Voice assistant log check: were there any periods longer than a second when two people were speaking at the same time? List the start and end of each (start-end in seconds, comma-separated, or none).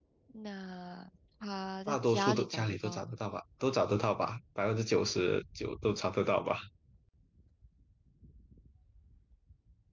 1.9-3.1